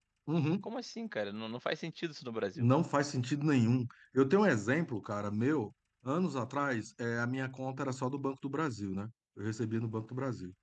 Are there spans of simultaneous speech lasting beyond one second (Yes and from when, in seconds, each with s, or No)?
No